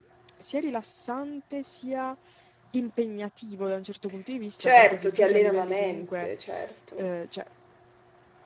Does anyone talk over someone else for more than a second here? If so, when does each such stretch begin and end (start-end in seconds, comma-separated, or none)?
4.6-6.3